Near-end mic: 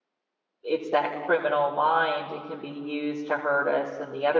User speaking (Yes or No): Yes